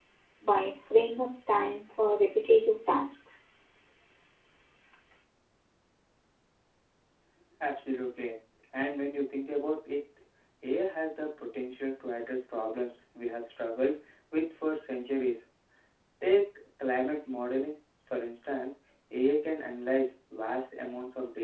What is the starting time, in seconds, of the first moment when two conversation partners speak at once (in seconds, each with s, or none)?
none